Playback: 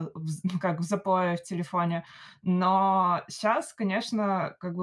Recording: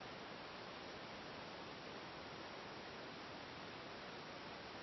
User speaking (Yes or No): No